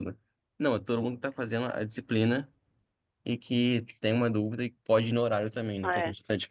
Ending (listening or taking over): taking over